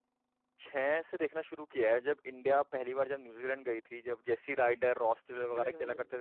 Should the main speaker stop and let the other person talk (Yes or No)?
Yes